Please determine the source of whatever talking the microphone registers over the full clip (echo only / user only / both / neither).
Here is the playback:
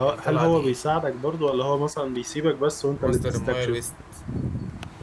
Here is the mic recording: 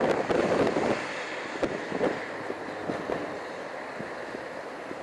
neither